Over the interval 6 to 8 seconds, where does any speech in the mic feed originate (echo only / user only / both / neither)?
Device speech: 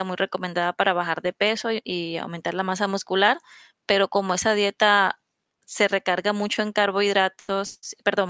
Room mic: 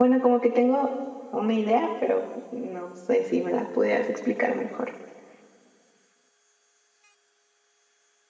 neither